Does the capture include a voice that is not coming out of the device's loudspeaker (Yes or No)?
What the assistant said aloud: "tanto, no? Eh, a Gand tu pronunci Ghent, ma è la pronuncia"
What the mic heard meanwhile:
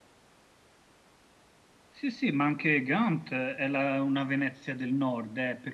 Yes